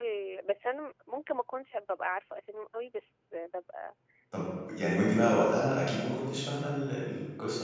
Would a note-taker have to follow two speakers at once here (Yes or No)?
No